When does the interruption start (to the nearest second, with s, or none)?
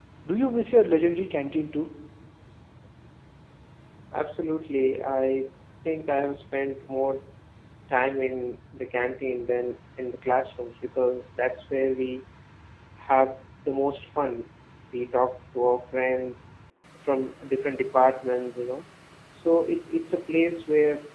none